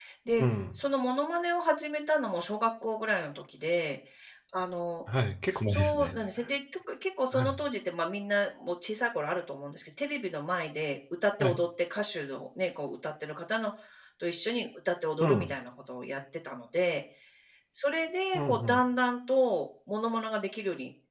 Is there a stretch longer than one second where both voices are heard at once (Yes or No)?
No